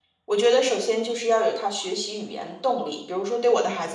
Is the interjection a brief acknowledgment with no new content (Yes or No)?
Yes